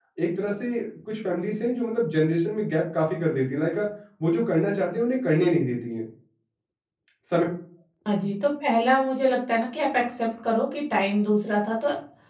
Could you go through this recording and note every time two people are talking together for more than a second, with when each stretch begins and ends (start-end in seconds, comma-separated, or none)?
none